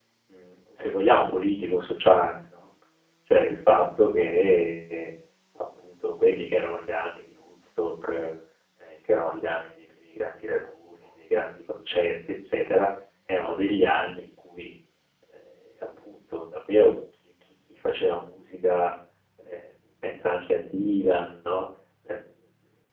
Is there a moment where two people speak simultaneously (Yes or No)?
No